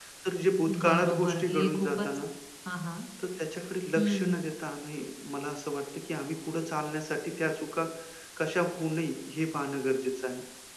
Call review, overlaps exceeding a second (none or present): present